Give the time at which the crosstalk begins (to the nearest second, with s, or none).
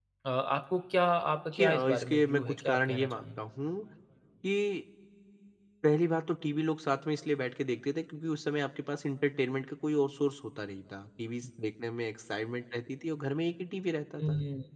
1 s